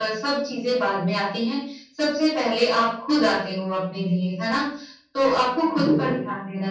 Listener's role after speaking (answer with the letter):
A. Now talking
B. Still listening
B